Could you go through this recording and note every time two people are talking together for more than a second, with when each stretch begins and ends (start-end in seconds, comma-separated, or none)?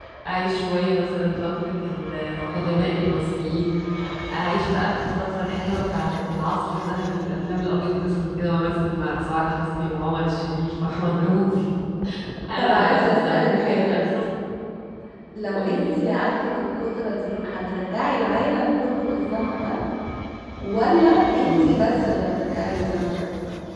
12.6-14.0